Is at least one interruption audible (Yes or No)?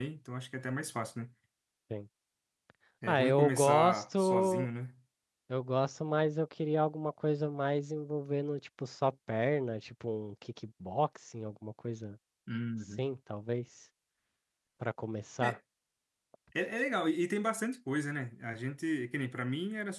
Yes